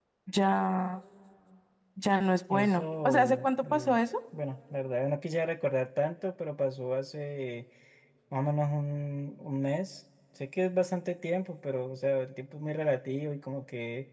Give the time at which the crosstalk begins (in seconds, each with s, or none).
2.5 s